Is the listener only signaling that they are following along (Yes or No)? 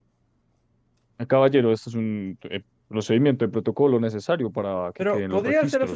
No